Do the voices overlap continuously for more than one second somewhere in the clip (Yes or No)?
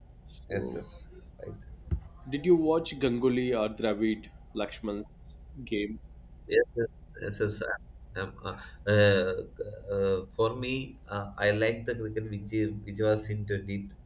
No